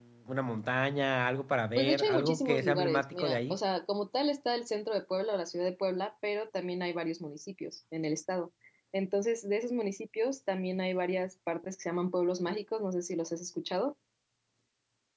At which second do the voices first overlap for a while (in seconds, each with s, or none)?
1.8 s